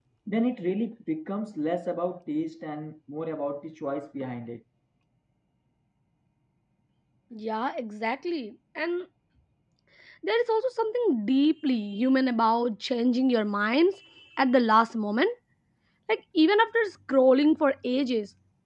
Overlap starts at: none

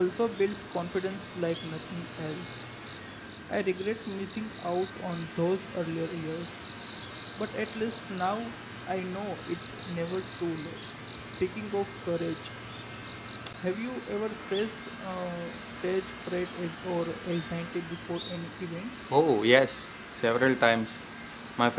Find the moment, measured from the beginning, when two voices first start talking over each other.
none

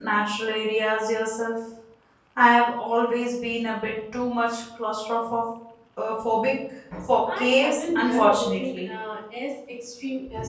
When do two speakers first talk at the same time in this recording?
7.4 s

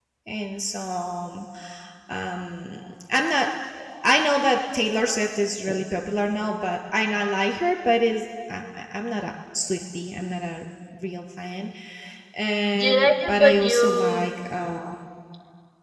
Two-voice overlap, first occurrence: 12.8 s

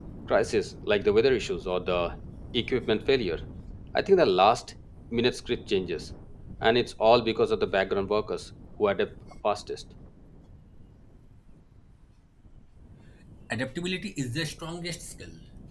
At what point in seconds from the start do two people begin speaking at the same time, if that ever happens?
none

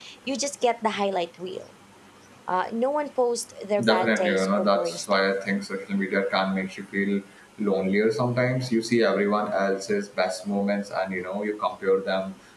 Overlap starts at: 3.8 s

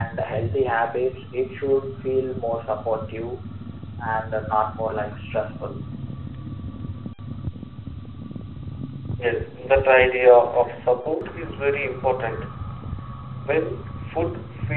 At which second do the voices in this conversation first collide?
none

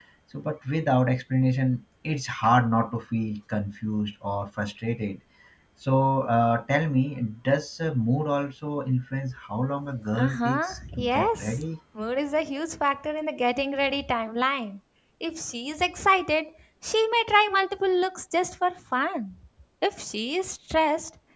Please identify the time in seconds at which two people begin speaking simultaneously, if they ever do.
10.1 s

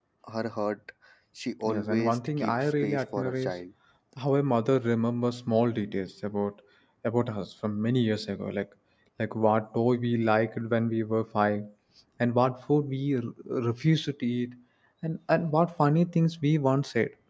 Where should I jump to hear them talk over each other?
1.7 s

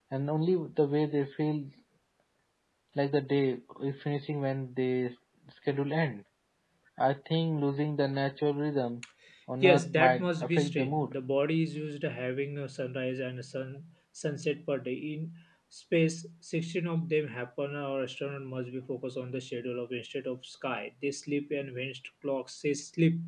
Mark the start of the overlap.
9.6 s

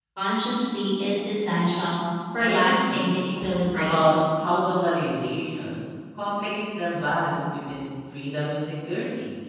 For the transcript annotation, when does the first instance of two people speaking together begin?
2.4 s

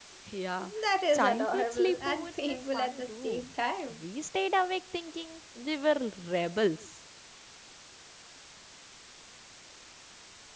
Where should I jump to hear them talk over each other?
1.1 s

